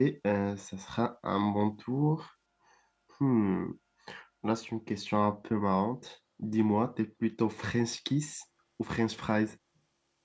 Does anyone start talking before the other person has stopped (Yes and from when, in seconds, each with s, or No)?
No